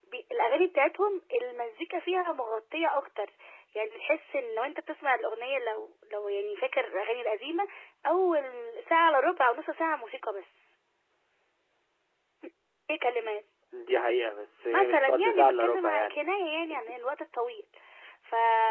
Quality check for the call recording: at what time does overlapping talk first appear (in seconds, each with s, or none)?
14.7 s